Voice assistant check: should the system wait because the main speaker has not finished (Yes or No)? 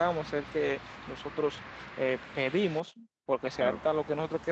Yes